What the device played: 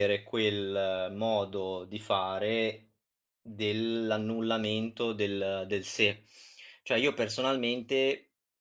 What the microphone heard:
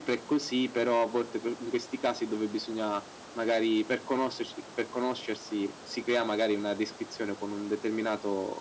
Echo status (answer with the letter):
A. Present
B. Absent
B